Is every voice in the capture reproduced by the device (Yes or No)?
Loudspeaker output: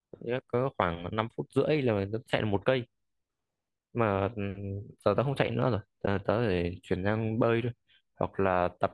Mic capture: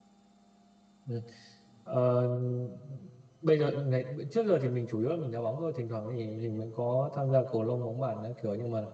No